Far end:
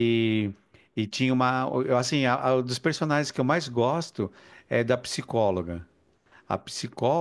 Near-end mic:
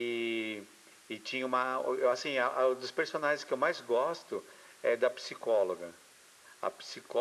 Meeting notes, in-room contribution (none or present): none